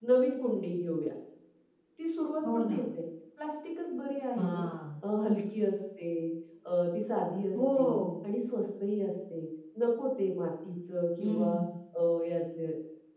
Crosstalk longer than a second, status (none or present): none